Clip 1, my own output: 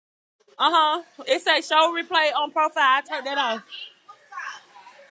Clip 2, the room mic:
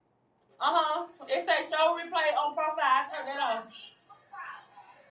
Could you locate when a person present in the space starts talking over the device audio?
none

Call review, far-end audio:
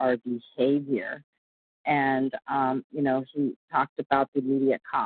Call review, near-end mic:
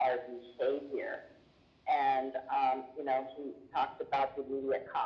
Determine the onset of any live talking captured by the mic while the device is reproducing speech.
none

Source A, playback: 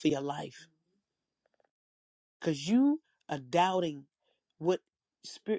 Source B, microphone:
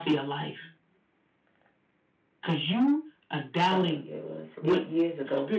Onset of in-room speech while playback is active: 3.6 s

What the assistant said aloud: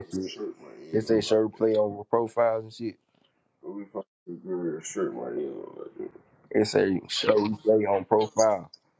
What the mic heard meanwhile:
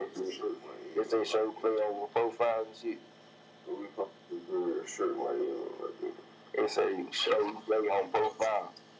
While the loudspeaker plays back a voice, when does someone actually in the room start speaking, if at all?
none

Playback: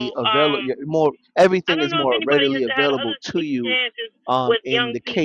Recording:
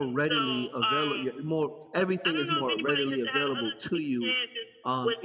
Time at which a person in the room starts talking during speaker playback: none

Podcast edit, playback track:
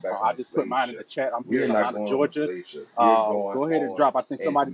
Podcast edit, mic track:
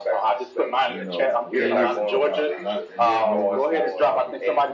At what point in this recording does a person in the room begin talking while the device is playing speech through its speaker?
0.9 s

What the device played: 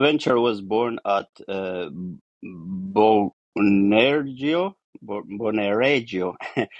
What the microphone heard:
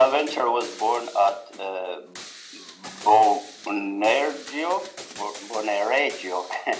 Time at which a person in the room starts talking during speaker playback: none

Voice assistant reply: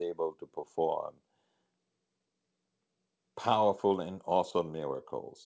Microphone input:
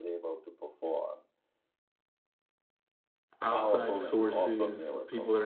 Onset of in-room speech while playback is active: 3.4 s

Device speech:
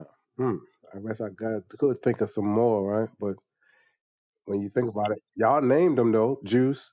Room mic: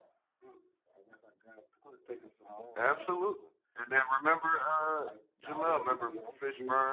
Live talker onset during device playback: 2.8 s

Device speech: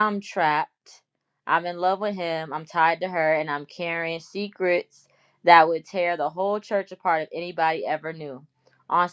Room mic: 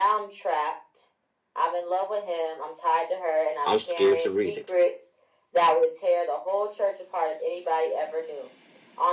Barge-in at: 3.6 s

